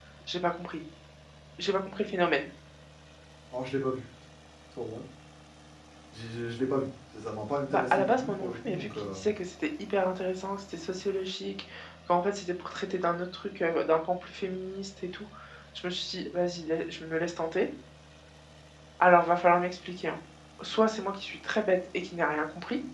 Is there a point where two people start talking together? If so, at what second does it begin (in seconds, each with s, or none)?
7.7 s